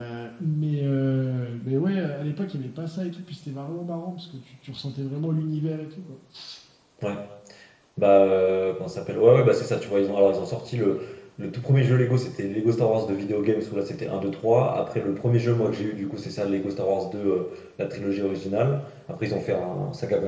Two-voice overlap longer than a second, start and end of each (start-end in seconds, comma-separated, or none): none